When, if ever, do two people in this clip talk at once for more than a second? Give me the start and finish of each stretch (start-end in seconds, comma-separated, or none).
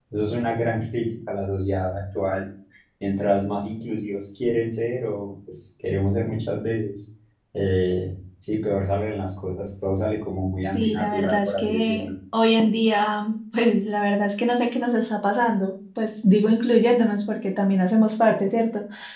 10.7-12.1